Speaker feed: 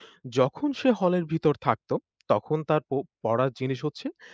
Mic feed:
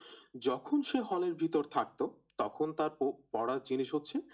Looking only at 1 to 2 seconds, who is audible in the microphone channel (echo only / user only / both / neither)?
echo only